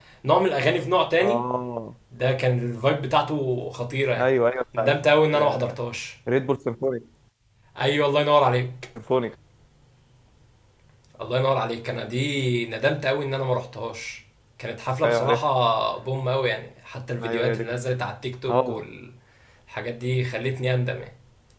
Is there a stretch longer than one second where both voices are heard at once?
No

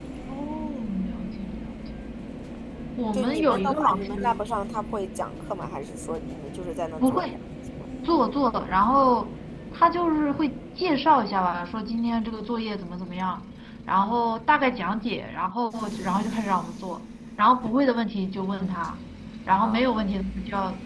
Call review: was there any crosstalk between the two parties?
Yes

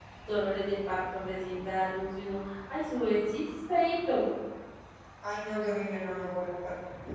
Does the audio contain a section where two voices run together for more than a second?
No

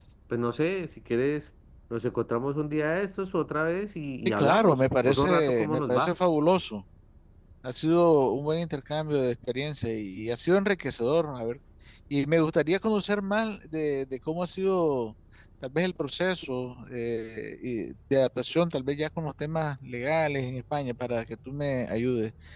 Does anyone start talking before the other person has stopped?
Yes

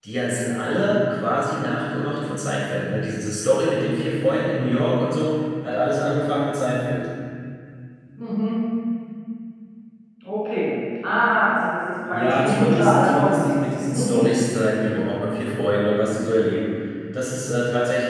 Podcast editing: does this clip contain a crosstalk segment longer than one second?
Yes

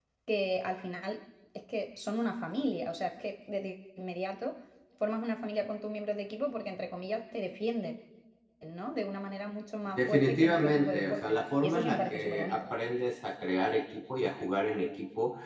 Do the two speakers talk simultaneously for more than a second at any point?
Yes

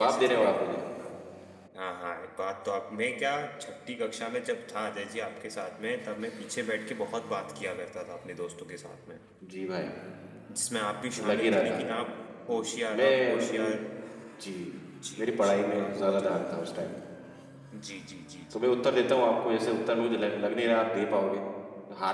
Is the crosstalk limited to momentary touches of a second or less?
No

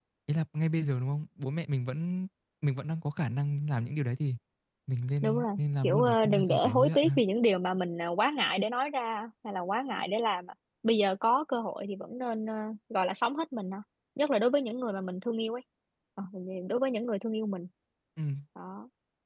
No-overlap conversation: No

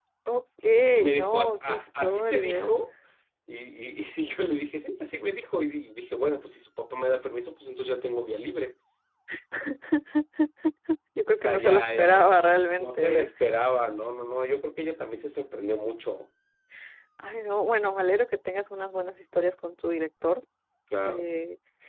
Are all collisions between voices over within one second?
No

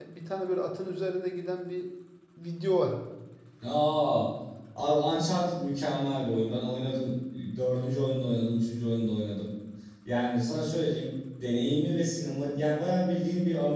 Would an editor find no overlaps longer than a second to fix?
Yes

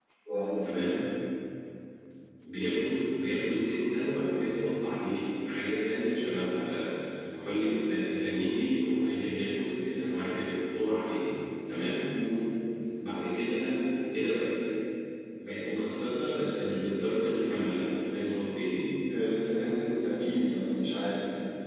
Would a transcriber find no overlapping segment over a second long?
Yes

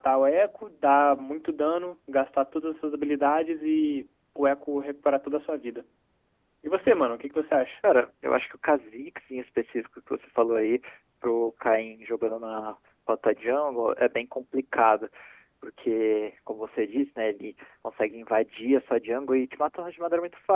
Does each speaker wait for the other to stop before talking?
Yes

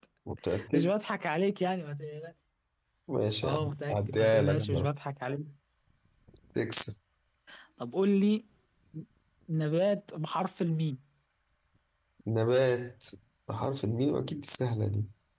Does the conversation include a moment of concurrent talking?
Yes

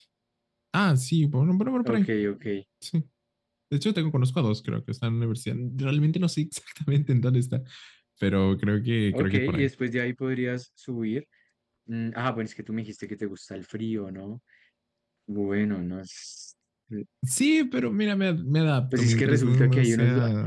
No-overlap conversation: No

